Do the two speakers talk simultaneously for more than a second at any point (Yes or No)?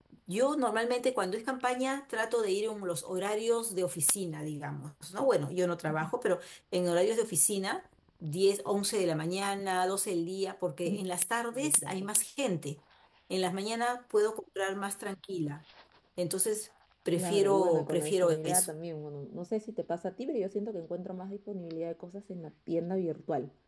Yes